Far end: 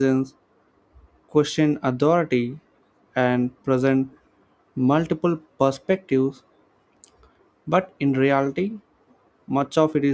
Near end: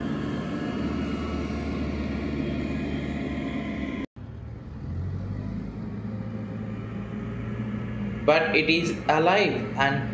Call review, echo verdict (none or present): none